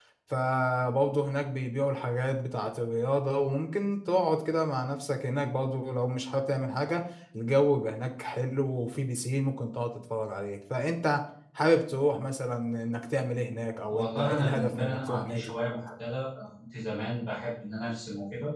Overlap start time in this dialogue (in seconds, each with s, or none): 13.9 s